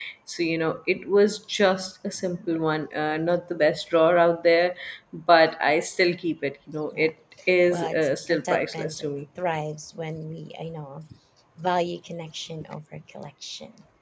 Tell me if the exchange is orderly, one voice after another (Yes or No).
No